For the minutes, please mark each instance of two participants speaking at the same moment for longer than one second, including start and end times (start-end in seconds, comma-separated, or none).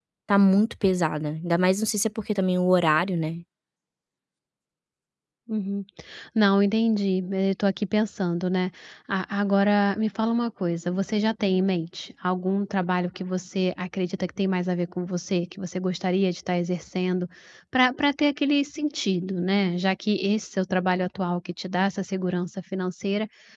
none